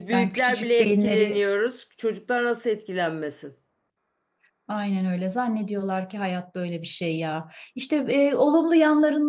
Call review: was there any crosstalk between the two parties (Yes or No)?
Yes